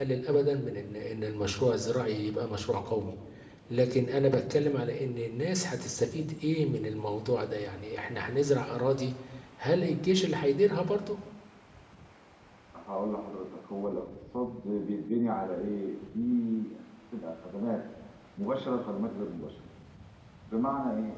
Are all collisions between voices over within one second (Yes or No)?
Yes